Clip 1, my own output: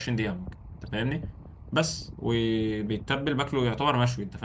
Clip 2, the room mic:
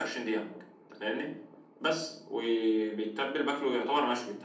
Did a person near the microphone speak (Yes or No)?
No